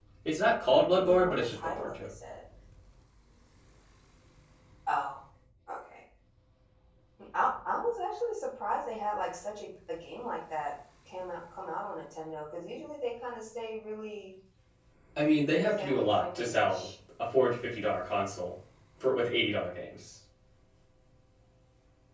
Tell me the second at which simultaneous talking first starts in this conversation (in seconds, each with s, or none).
0.7 s